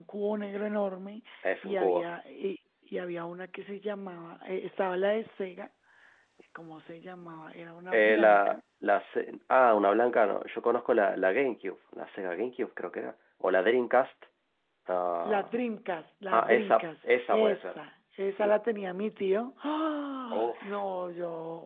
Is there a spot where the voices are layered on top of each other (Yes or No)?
Yes